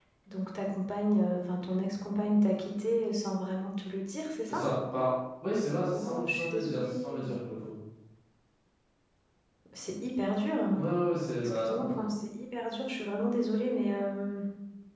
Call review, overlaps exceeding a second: present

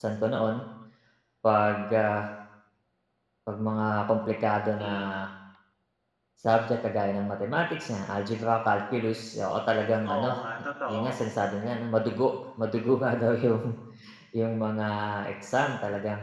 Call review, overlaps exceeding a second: none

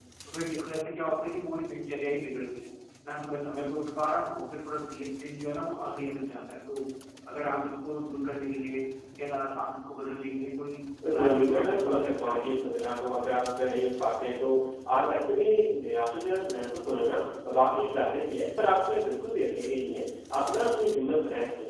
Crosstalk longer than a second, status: present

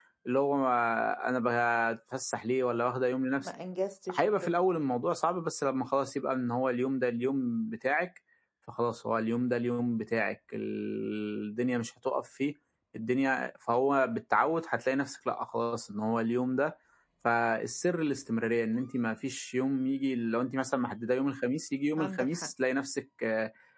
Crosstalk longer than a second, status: none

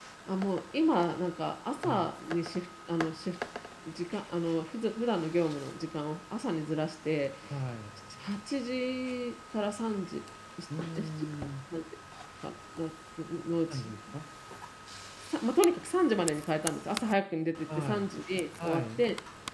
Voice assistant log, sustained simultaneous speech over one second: none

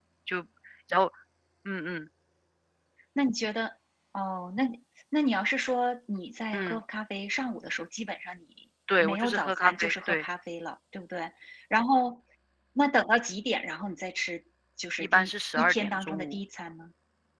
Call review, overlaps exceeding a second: present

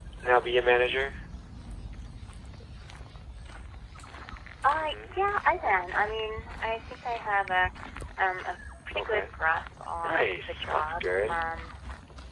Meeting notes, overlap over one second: present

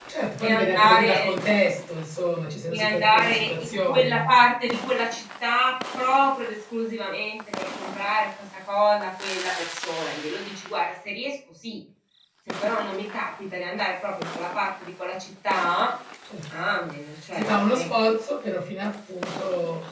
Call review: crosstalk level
present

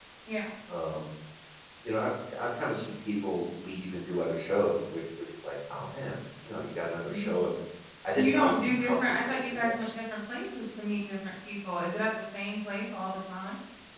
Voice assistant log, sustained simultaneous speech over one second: present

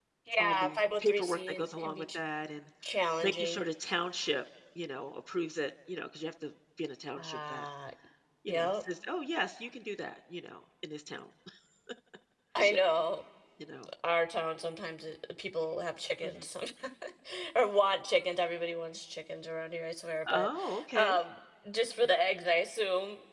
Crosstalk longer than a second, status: present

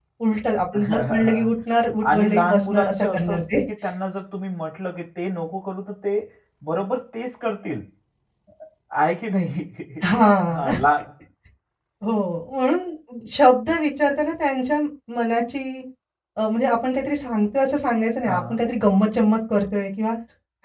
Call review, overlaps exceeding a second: present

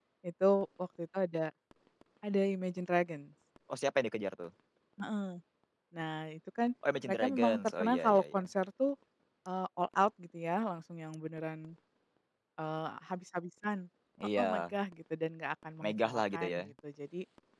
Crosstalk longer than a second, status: present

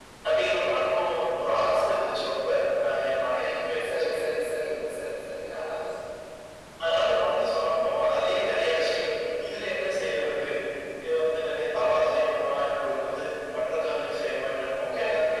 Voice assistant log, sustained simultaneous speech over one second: none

